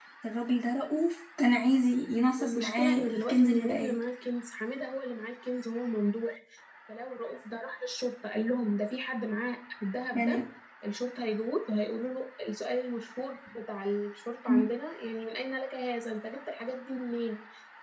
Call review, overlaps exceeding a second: present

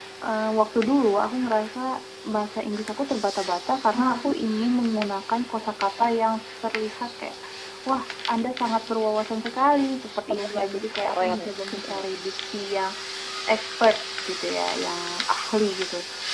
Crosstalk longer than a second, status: present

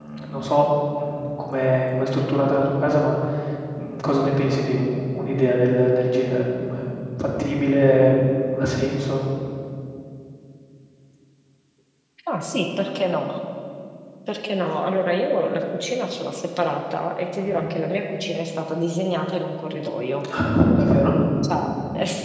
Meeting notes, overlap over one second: none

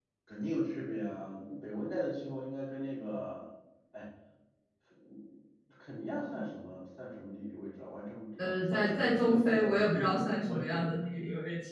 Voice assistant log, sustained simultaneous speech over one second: present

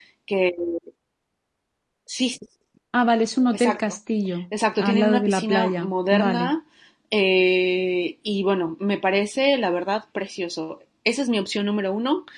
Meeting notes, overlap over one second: present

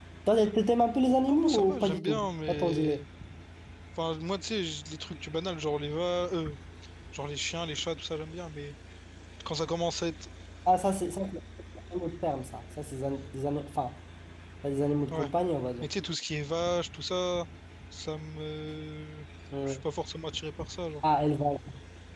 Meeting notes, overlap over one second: present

